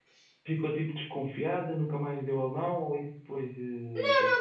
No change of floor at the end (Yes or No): No